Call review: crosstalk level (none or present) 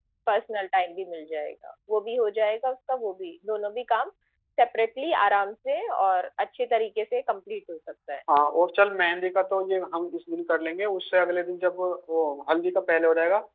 none